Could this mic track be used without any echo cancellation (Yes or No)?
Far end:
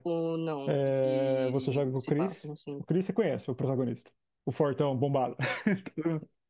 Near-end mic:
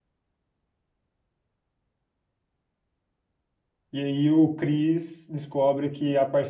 Yes